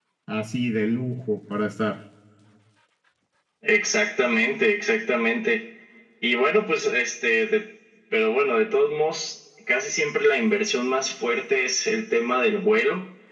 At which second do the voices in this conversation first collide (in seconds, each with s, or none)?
none